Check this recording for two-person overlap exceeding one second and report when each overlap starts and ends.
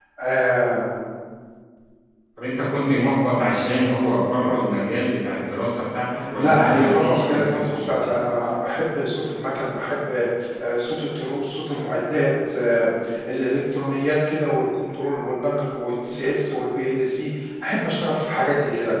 6.4-8.0

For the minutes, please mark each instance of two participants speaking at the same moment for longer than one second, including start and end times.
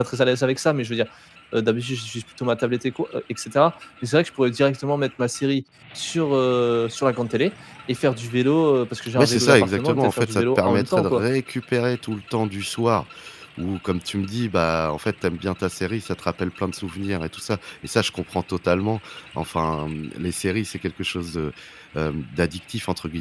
9.2-11.2

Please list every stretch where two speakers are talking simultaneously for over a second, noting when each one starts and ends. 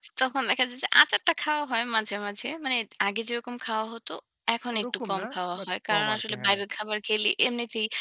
4.7-6.6

